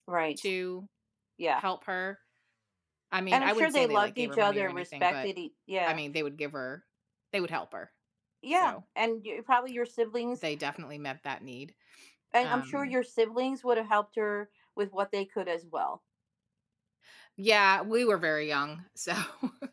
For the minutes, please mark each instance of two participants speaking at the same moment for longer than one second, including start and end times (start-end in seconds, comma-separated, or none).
3.3-5.3